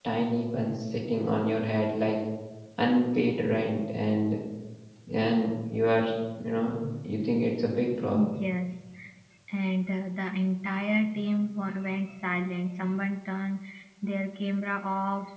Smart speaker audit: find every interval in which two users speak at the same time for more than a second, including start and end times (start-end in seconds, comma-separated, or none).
none